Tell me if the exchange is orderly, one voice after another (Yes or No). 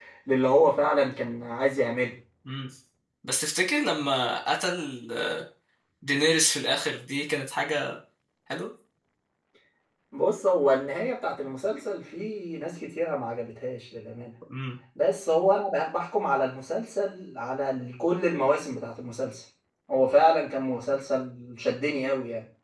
Yes